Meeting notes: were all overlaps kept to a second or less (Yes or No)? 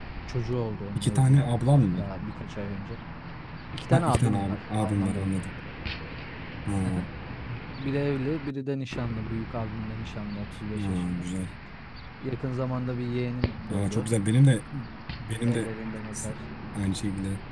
No